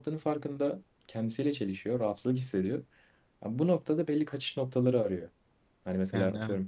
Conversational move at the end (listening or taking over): listening